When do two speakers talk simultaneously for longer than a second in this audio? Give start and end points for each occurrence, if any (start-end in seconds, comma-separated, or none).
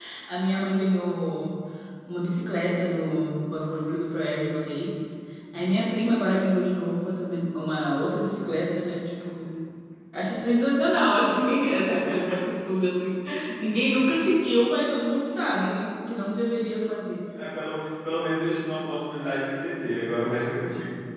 none